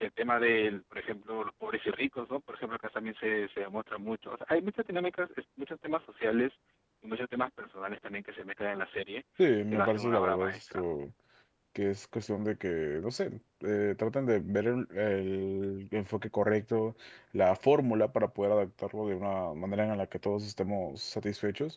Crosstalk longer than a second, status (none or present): present